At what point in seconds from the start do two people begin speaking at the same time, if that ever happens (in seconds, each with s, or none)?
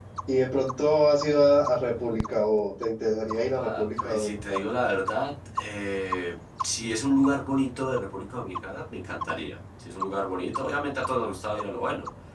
3.3 s